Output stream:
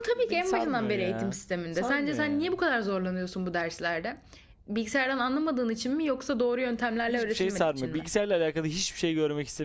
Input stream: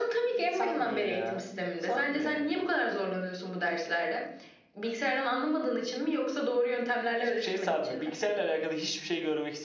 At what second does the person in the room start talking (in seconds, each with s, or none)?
none